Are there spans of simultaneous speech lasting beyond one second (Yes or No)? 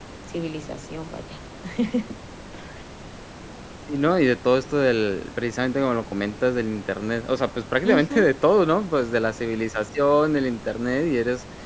No